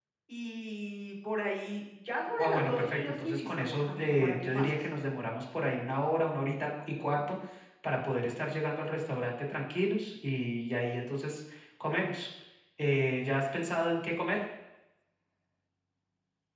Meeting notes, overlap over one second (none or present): present